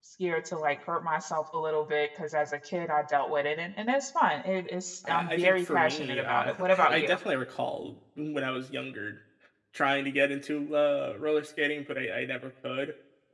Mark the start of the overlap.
5.0 s

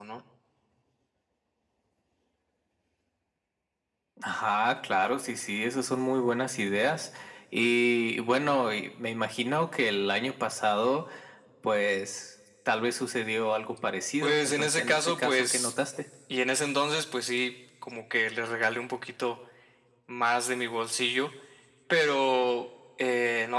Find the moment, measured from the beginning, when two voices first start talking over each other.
14.2 s

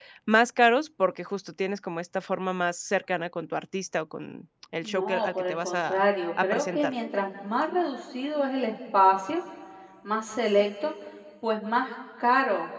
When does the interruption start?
4.8 s

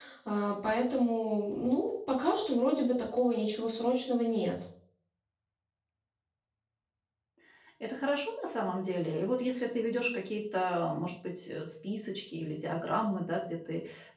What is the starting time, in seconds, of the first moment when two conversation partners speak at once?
none

